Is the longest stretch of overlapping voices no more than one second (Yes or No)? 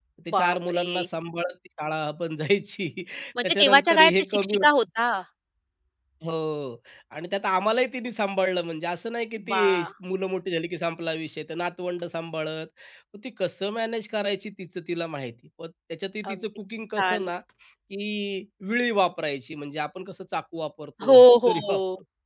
No